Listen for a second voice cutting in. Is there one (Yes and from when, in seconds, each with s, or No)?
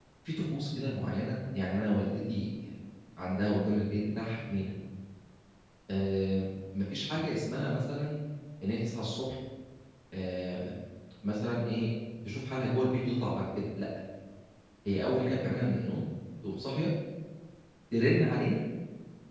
No